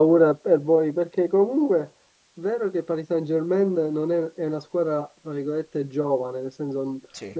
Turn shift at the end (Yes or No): No